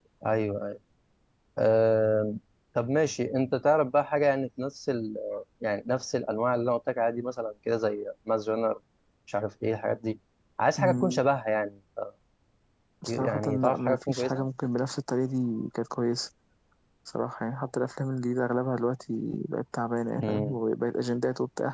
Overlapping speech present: Yes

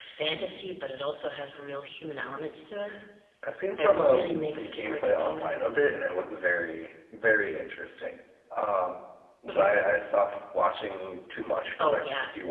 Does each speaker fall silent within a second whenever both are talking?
No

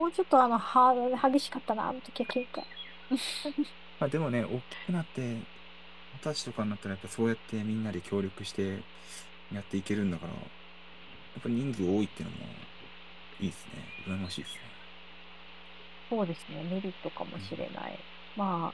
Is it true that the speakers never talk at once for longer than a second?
Yes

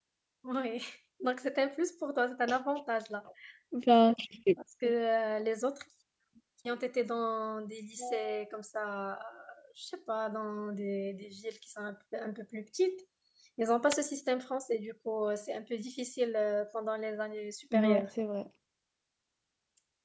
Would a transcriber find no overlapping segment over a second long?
Yes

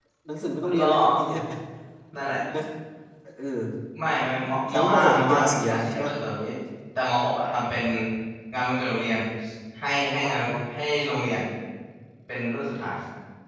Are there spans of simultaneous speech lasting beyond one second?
Yes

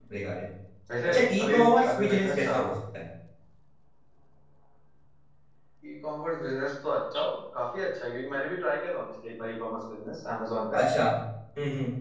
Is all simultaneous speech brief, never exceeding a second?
No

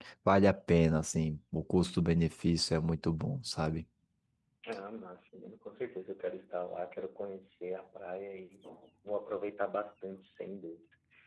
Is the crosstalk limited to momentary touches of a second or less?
Yes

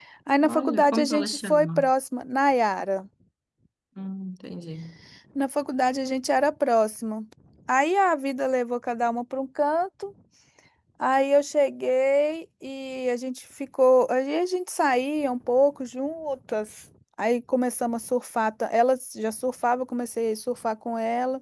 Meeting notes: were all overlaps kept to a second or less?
No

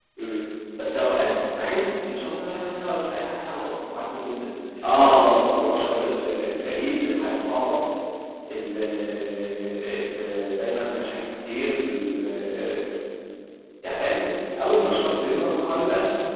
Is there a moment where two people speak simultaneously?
Yes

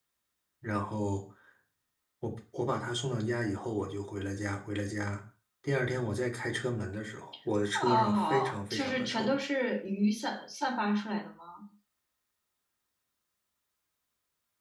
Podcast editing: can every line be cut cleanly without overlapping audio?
No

